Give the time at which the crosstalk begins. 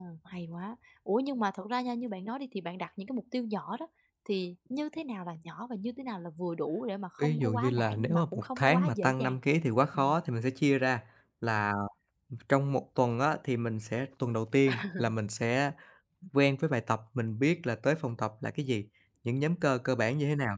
7 s

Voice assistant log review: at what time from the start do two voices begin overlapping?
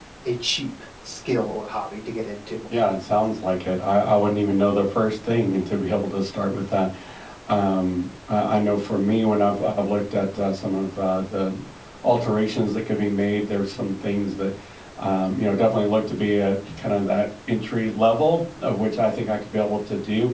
none

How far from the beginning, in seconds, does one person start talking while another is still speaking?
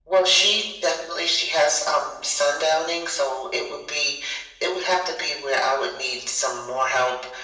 none

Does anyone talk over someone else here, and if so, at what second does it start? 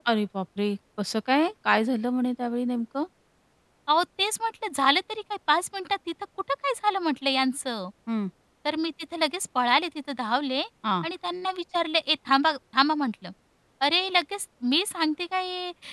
none

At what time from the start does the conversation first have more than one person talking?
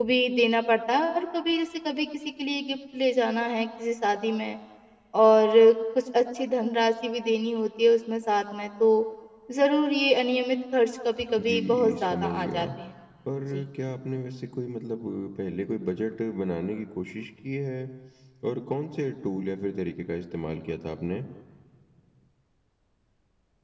11 s

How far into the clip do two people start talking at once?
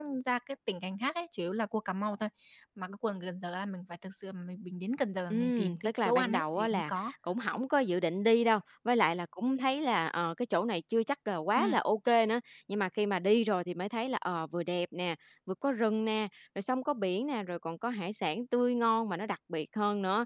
5 s

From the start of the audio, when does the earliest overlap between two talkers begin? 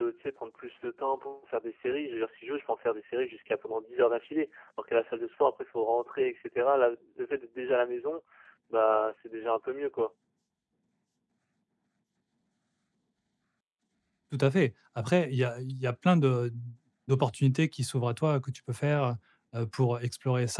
none

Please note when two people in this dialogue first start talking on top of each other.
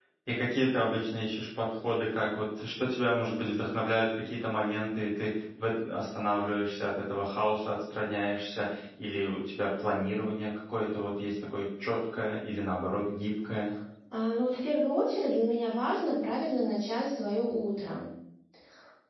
none

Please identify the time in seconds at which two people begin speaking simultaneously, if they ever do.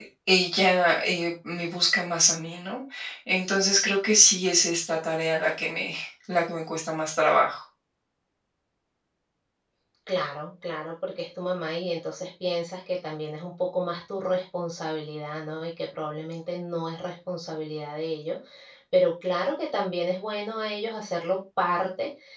none

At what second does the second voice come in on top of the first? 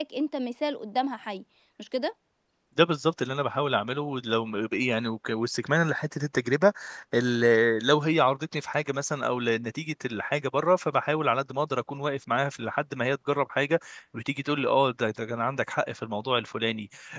none

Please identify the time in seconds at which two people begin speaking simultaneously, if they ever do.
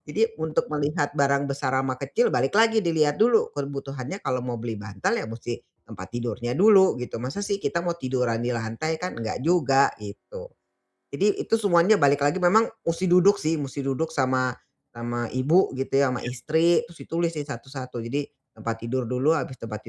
none

